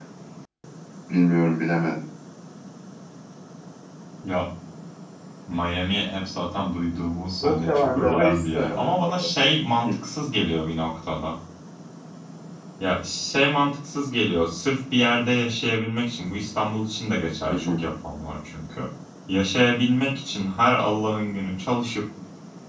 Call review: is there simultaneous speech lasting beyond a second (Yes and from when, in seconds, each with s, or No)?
Yes, from 7.4 s